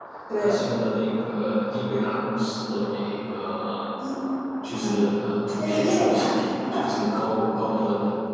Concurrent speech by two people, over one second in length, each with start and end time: 5.6-7.4

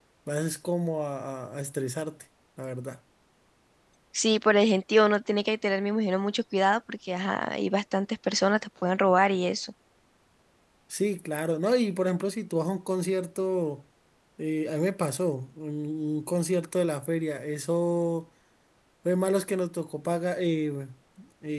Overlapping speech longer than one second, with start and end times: none

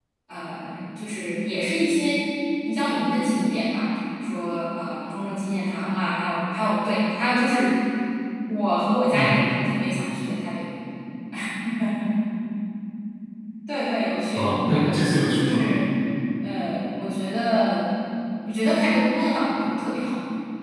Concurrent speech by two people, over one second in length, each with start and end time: 14.3-15.7

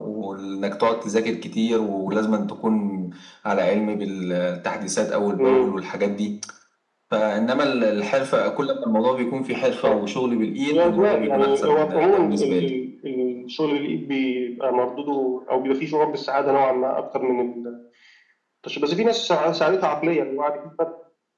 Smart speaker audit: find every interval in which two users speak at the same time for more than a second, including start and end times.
10.7-12.7

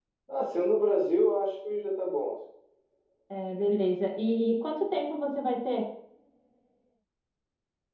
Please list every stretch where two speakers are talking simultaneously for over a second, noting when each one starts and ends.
none

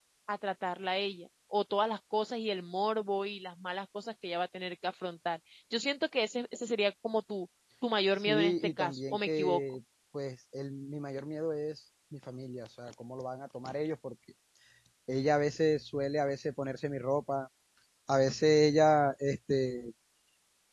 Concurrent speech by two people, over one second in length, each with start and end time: 8.2-9.6

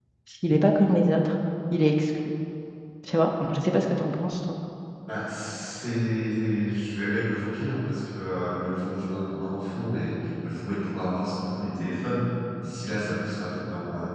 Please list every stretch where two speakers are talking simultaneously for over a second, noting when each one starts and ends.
none

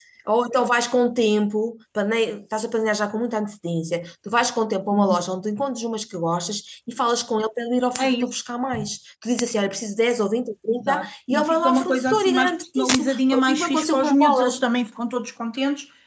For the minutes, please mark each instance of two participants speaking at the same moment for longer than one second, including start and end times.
10.7-14.6

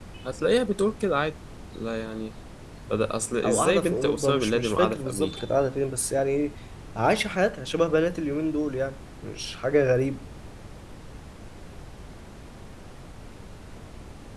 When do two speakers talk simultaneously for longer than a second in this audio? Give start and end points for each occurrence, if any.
3.4-5.4

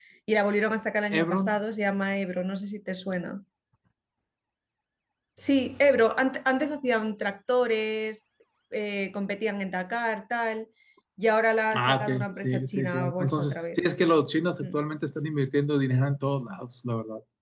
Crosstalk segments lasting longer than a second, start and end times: 11.7-13.8

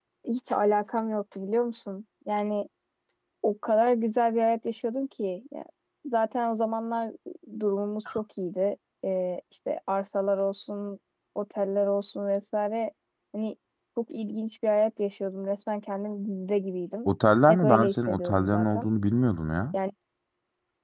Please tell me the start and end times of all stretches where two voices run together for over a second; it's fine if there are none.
17.5-18.9

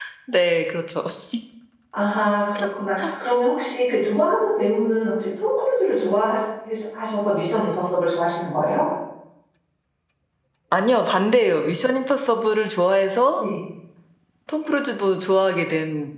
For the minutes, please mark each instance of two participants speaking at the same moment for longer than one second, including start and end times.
none

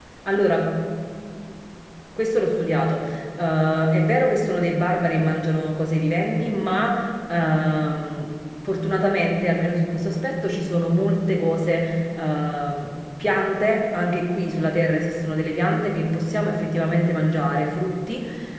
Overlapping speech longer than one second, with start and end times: none

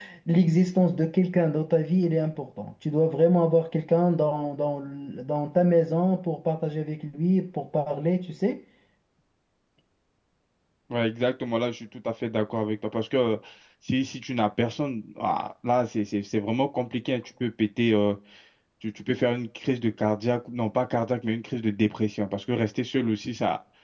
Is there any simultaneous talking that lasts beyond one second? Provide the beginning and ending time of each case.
none

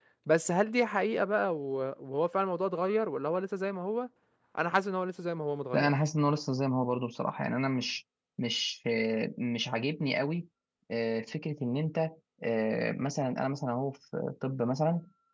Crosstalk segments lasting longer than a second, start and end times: none

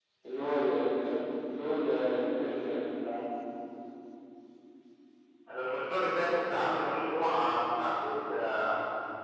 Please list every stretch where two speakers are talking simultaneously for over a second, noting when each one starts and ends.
none

